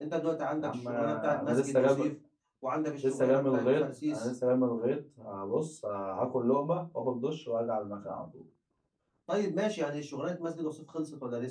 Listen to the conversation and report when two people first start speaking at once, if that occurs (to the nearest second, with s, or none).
1 s